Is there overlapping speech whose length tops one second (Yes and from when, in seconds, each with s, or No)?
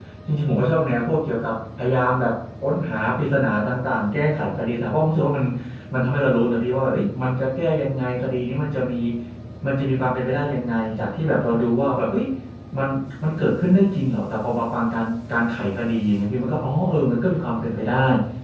No